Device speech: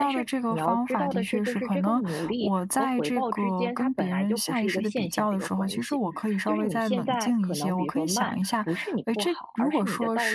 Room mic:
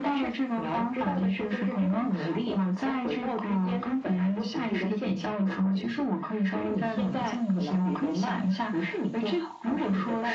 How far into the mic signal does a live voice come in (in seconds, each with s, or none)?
none